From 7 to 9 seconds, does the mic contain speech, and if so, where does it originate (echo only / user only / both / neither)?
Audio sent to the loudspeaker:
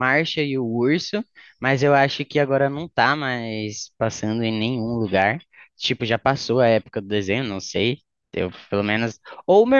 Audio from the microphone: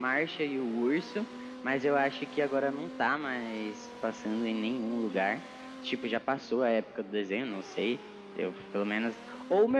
echo only